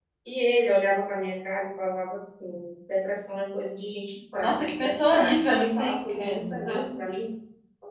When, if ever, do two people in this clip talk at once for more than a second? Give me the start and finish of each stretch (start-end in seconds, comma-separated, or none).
4.4-7.3